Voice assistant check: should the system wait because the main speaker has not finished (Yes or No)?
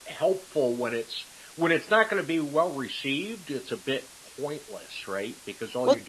No